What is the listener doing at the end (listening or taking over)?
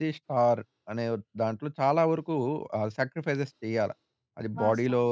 listening